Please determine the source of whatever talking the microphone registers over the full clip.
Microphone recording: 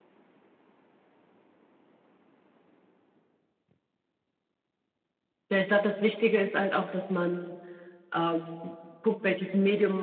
user only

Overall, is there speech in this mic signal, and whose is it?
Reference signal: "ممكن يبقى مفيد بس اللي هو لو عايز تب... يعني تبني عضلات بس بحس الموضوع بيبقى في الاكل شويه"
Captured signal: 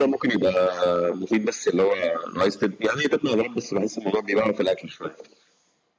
echo only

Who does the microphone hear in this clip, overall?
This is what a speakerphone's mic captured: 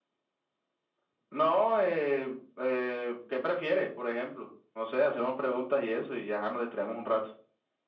echo only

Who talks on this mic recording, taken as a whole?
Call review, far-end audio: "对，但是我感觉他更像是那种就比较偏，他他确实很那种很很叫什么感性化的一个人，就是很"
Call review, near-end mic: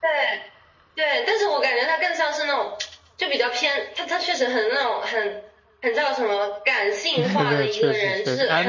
both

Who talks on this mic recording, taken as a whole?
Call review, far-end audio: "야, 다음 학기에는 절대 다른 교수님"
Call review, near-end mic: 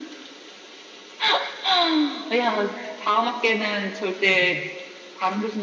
both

